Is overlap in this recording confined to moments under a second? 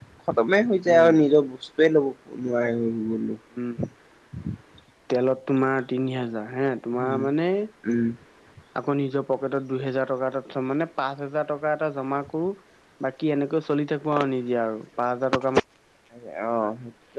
Yes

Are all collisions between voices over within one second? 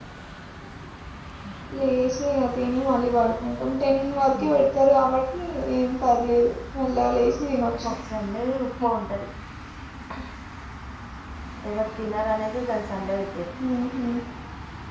Yes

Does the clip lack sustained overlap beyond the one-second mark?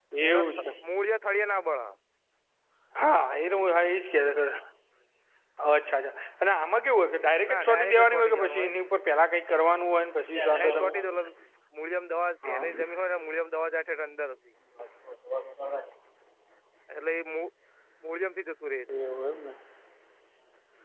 No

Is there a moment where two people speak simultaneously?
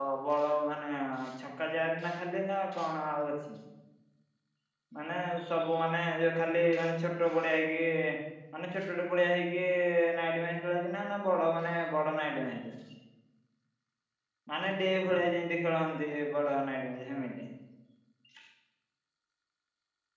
No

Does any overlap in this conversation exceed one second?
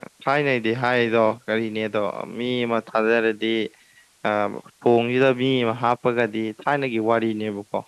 No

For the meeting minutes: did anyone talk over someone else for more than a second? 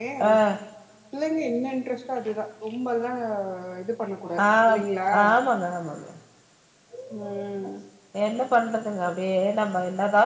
No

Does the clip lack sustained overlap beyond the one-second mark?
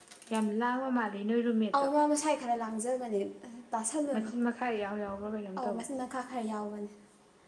Yes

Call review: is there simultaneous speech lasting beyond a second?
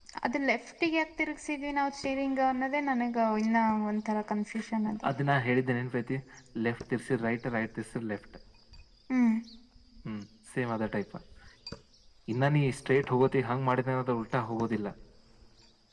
No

